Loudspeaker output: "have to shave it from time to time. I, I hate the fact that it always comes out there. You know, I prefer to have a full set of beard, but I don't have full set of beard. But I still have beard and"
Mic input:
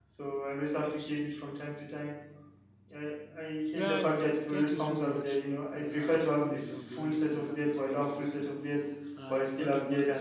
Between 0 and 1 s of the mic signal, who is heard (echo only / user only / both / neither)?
echo only